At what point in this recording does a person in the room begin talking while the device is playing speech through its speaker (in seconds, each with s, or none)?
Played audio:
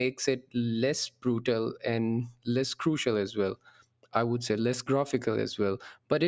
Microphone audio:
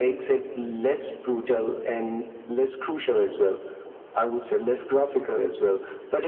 none